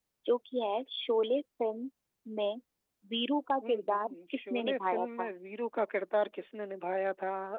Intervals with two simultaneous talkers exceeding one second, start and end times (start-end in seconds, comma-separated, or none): 3.7-5.3